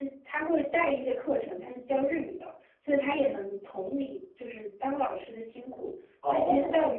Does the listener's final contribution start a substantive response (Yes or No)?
No